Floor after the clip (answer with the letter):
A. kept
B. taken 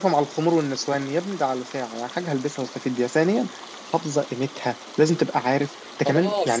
B